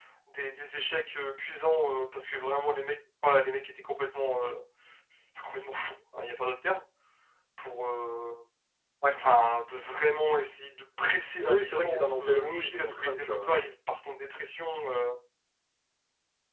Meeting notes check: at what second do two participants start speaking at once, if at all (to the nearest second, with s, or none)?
11 s